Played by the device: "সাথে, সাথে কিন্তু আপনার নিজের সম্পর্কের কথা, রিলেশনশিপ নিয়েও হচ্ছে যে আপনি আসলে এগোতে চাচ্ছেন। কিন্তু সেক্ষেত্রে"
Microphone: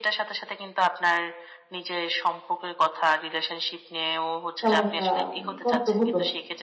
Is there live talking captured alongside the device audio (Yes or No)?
Yes